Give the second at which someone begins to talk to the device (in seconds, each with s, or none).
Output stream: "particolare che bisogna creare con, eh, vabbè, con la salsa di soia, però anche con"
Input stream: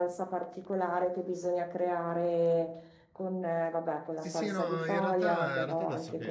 4.2 s